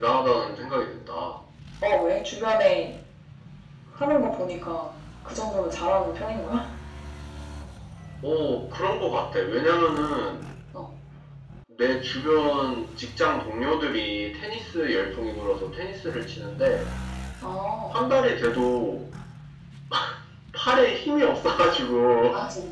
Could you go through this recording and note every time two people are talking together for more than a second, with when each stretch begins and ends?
none

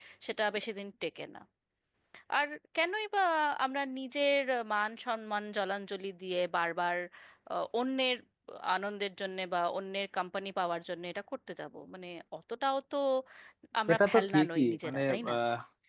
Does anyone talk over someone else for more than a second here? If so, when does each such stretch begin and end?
13.9-15.3

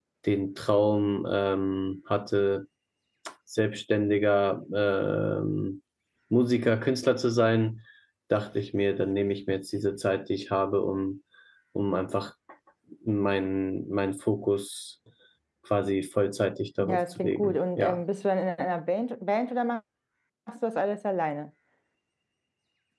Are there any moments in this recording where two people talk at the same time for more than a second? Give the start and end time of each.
16.8-18.0

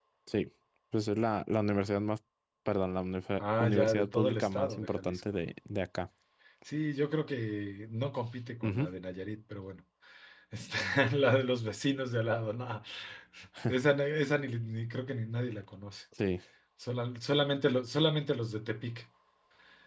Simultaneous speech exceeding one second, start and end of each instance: 3.4-5.2

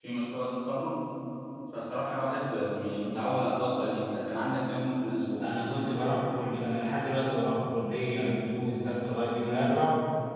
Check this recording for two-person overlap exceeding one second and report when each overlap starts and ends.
none

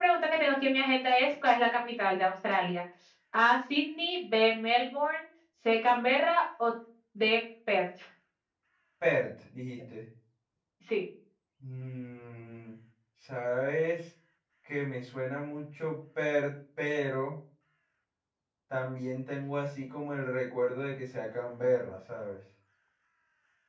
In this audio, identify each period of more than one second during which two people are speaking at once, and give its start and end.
none

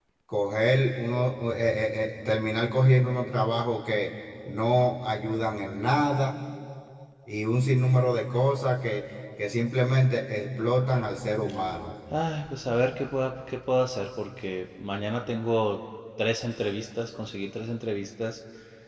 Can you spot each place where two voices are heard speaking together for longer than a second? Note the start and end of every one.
none

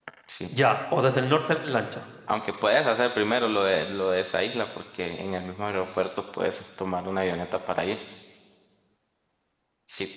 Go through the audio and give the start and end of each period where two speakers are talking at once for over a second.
none

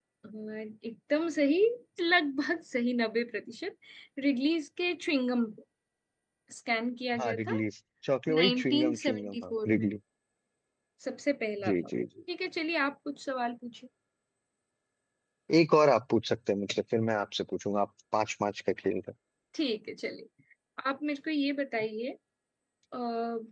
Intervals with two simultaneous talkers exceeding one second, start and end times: 8.3-9.9

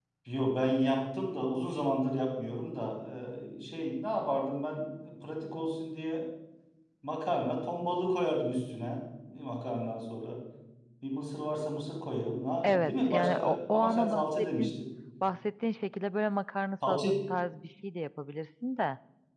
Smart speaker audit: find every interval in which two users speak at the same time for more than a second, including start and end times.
12.6-14.7

